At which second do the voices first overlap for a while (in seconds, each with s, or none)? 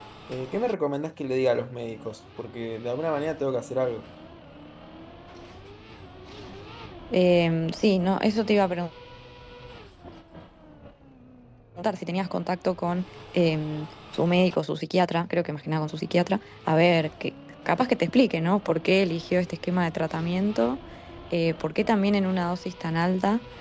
none